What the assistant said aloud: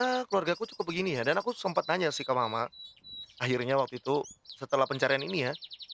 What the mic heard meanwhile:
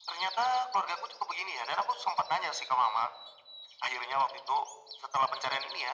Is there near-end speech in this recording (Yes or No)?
No